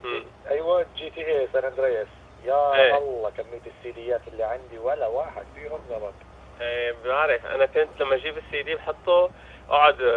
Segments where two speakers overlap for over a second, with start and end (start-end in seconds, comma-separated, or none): none